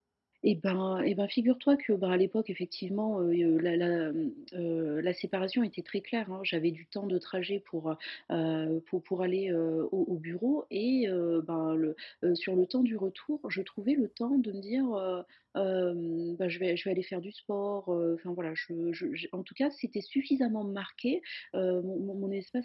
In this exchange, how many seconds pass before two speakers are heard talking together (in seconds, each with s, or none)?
none